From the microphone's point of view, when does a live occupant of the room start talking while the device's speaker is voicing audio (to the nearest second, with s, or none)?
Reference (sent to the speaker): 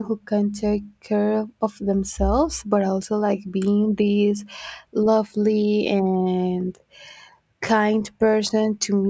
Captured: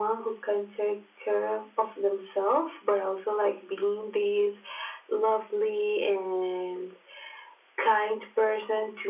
none